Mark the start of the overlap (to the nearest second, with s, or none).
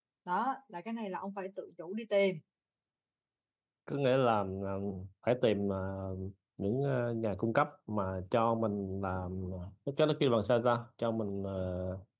none